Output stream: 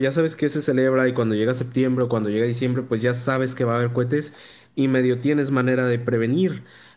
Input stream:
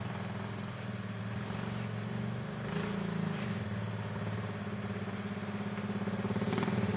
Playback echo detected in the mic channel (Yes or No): No